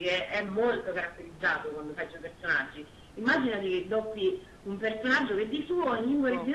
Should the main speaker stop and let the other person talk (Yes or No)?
No